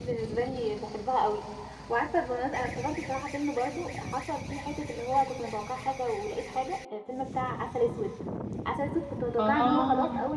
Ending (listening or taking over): listening